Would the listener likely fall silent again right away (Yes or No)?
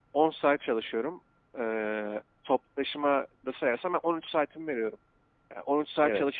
Yes